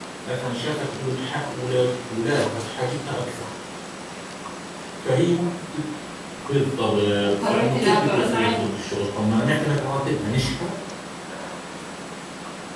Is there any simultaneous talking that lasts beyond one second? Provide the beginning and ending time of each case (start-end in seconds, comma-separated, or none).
7.2-8.7